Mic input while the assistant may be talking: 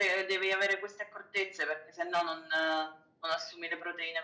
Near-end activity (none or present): none